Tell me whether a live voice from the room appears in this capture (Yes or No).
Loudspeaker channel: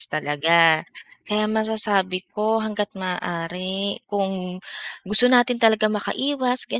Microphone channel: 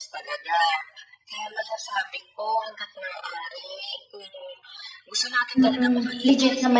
Yes